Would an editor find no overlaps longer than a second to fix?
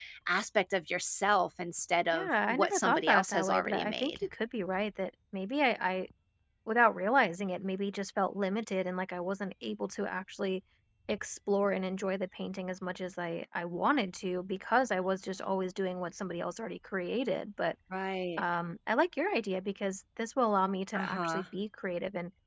No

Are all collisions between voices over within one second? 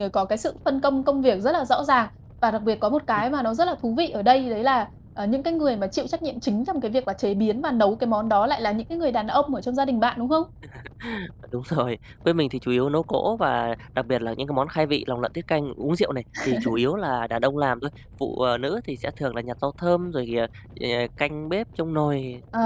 Yes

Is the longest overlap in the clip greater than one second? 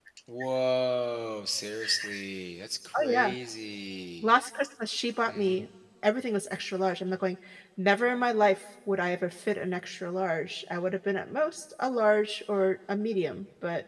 No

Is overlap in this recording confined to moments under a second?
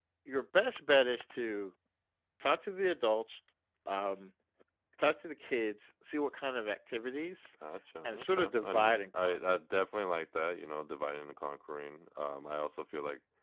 No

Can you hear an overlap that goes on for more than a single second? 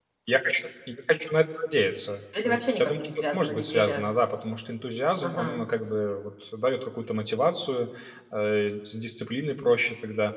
Yes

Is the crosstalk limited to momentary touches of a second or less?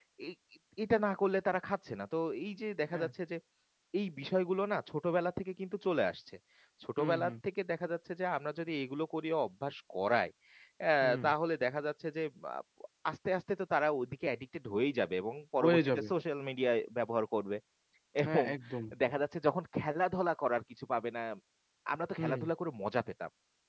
Yes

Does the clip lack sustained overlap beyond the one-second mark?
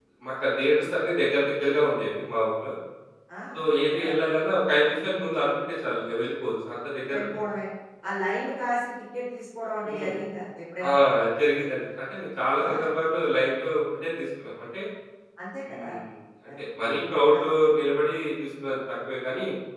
Yes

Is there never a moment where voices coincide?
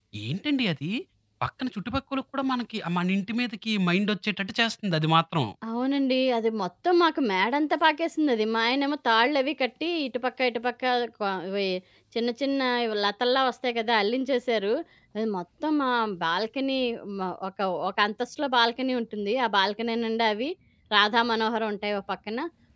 Yes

